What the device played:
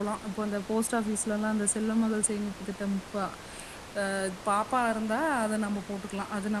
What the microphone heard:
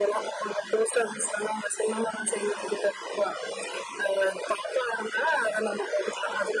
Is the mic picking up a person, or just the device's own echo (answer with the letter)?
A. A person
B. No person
B